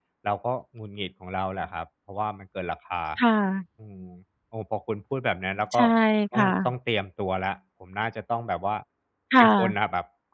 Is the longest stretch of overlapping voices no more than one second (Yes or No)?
Yes